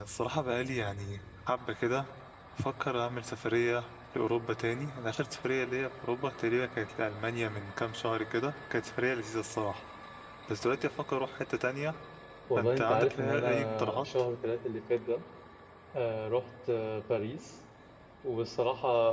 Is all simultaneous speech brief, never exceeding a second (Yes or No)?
No